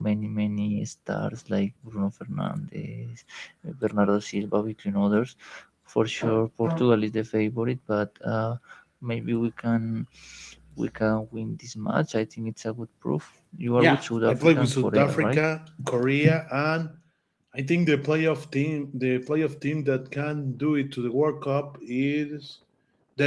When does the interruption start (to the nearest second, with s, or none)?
14 s